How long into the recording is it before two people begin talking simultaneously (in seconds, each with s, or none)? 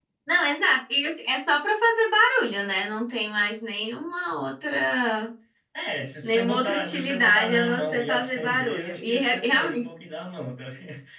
6.2 s